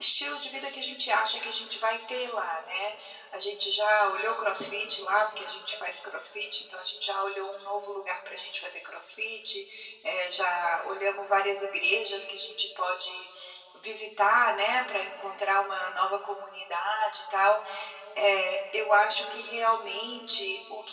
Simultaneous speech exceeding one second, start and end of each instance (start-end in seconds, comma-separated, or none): none